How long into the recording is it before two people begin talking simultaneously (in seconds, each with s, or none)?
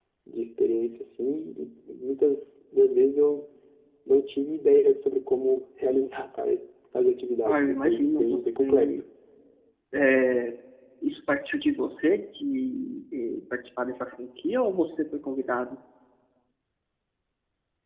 7.4 s